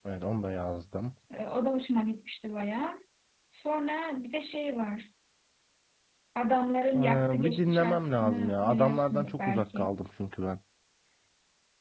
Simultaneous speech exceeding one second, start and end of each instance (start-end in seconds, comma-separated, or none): 7.0-9.9